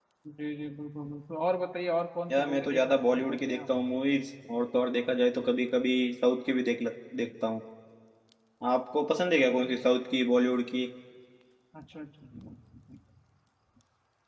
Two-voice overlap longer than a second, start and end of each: 2.3-3.6

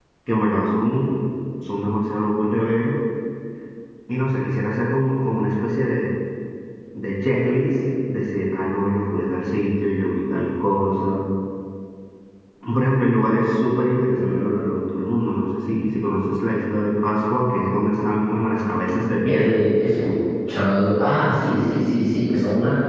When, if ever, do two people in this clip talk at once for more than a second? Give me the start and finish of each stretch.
none

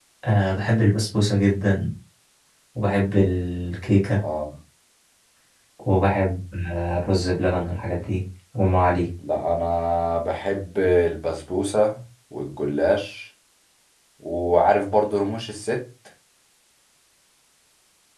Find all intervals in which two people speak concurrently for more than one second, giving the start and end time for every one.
none

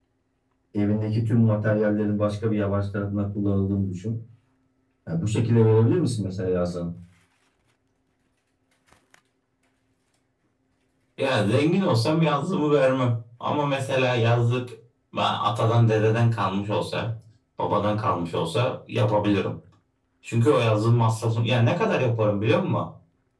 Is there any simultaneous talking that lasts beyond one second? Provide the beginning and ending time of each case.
none

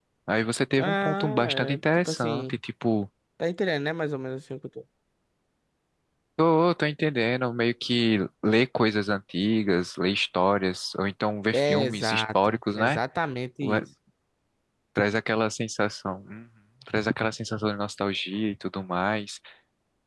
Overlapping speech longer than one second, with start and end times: 0.8-2.6, 11.5-13.0

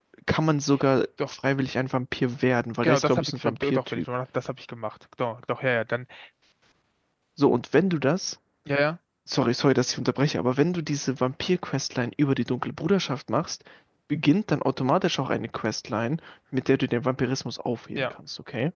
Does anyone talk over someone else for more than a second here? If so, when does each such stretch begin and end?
2.8-4.0

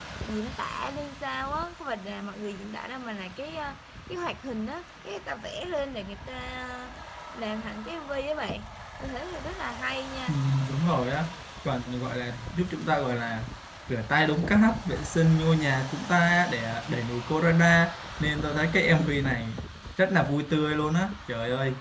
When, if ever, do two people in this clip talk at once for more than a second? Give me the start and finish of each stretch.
none

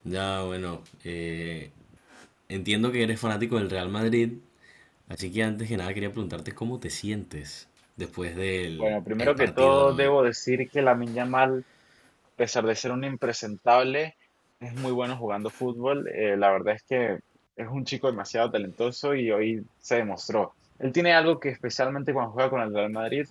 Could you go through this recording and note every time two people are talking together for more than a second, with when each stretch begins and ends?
8.8-10.1

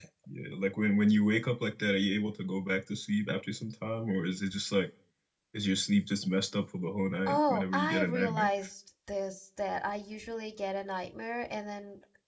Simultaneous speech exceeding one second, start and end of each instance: 7.3-8.5

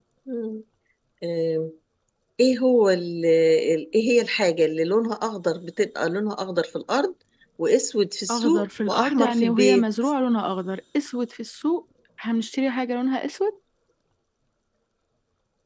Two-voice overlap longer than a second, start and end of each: 8.3-9.8

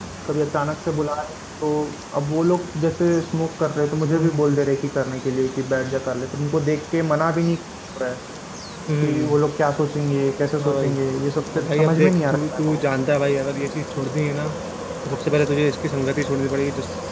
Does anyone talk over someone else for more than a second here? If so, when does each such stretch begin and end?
11.5-12.8

